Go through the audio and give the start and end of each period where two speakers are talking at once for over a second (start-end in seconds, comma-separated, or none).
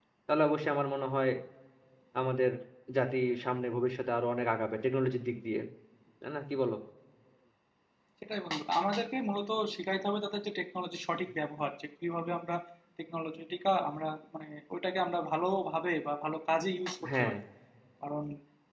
none